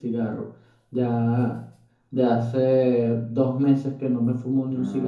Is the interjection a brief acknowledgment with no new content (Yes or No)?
No